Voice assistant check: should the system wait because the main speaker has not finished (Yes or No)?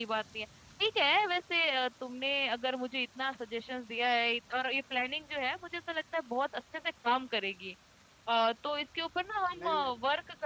Yes